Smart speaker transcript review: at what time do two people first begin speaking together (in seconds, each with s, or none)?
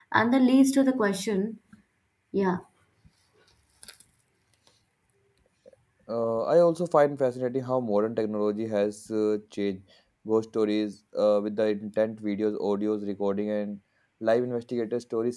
none